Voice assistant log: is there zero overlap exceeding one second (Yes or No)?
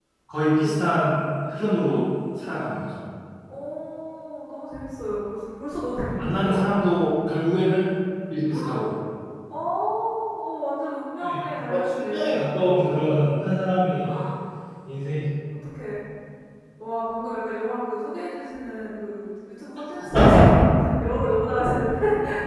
No